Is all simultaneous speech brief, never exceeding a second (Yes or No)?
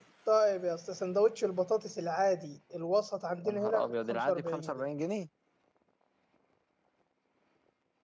No